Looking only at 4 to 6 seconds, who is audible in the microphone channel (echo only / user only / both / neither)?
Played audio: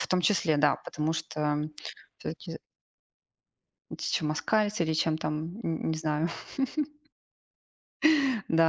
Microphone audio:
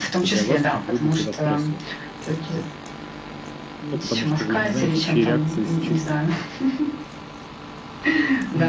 both